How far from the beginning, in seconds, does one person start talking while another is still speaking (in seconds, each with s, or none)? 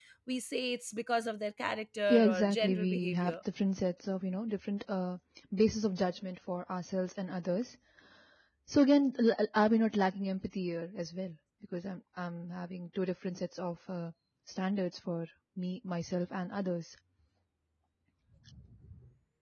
2.1 s